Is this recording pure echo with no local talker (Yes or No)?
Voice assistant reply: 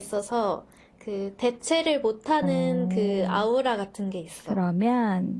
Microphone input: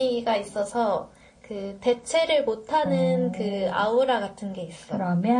Yes